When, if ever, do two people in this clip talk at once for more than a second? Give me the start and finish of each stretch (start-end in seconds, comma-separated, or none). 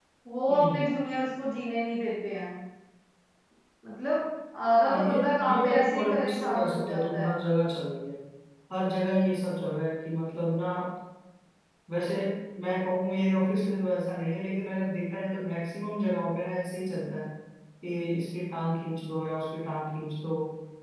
4.9-7.3